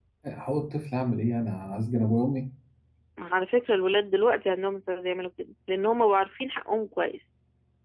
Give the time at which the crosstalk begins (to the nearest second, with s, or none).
none